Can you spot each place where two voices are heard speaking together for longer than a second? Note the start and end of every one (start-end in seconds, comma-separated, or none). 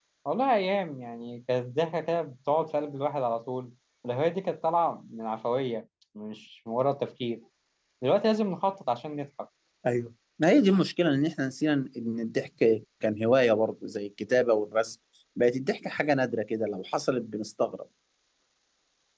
none